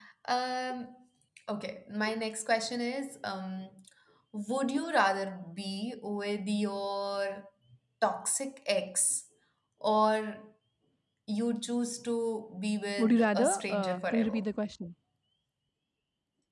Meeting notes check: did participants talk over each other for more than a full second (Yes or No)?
Yes